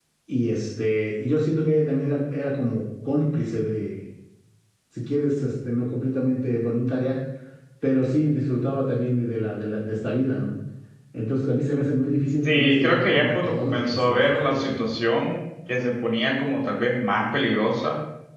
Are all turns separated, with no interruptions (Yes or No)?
No